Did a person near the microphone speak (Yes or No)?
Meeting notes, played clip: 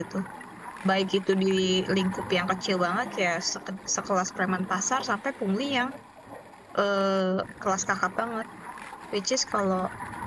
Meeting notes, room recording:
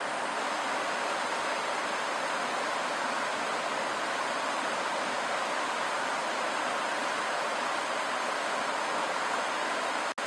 No